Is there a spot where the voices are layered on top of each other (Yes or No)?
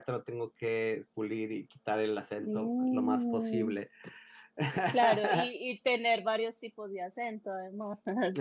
Yes